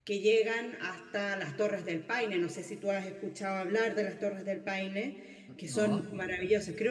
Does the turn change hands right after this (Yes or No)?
No